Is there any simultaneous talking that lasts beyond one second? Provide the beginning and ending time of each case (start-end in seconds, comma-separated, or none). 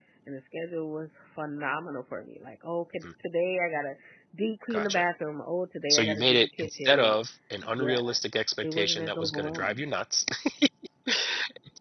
5.9-7.1, 8.6-9.8